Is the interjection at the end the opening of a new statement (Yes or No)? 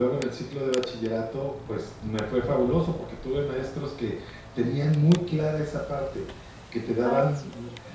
No